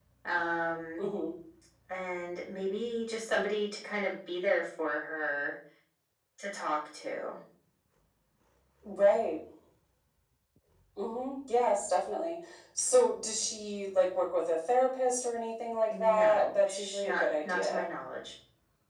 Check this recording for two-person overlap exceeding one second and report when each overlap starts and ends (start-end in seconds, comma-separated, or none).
15.9-17.8